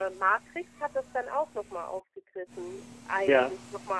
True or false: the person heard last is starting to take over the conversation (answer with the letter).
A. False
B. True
A